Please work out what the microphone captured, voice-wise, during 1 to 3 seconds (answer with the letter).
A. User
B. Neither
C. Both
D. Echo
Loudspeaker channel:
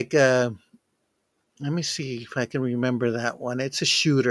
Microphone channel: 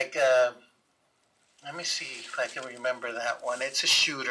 D